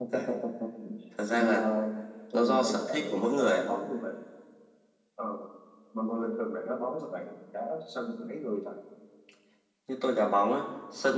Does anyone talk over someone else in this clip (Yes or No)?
Yes